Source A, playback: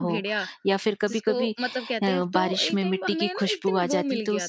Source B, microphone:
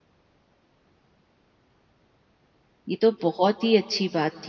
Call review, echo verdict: none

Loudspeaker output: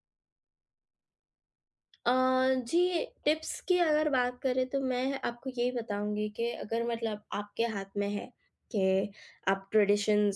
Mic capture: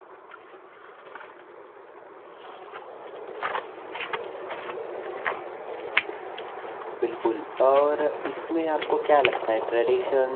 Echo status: none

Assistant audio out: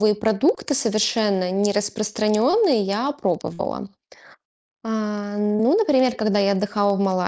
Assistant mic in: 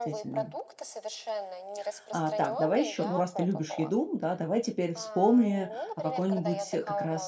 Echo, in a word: present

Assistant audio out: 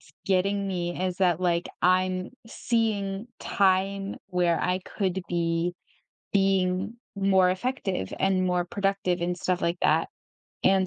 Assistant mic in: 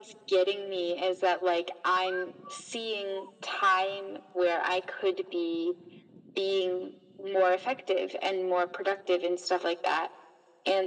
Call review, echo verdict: present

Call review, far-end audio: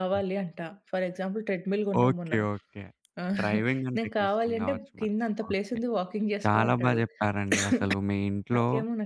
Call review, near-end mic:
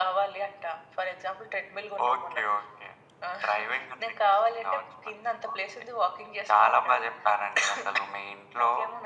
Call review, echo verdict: present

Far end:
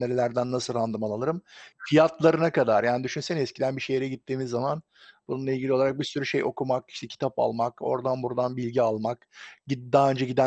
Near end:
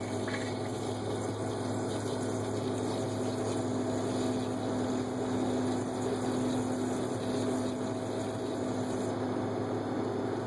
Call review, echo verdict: none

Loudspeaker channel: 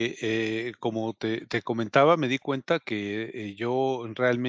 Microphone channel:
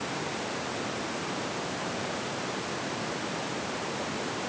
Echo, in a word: none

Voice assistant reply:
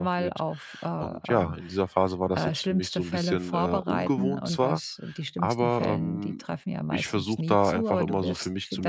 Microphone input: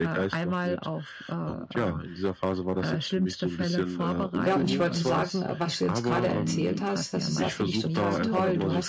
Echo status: present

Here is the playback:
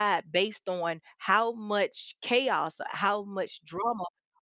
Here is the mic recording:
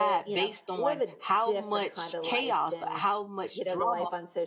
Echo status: present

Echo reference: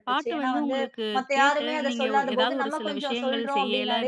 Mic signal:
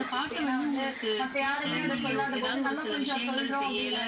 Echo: present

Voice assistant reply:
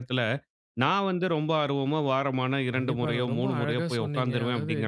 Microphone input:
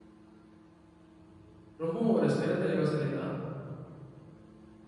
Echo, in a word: none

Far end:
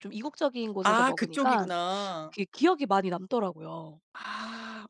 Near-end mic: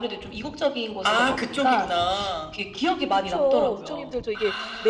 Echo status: present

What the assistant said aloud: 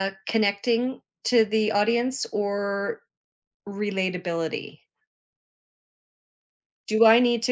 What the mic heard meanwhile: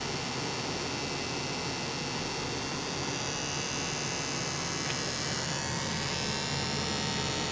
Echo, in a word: none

